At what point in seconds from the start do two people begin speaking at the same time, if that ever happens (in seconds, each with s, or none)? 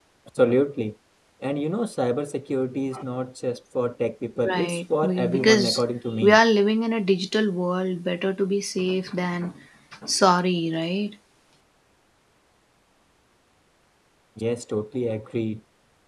4.4 s